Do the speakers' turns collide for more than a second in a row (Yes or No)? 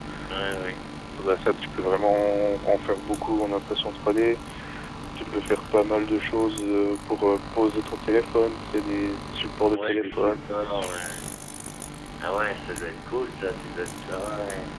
Yes